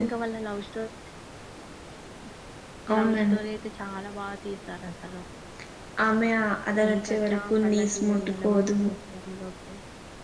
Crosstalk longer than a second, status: present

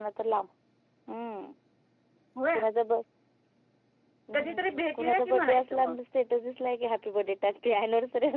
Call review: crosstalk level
present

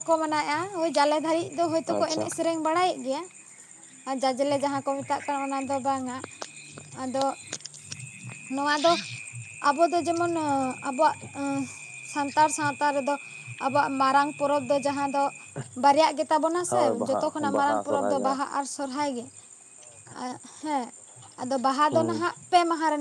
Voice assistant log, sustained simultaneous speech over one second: present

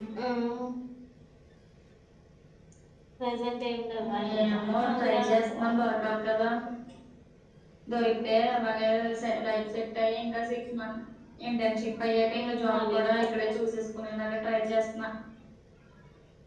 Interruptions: present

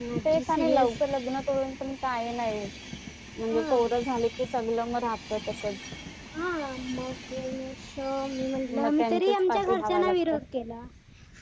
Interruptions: present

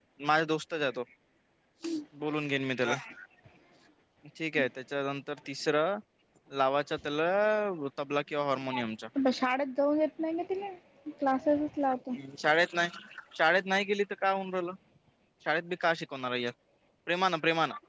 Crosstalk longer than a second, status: none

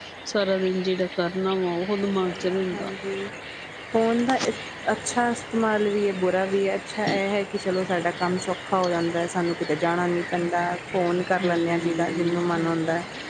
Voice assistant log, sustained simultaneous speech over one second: present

